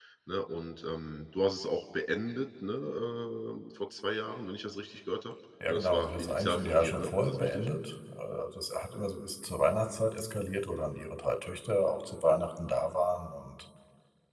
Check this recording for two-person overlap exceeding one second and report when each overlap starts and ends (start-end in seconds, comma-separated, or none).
5.7-7.7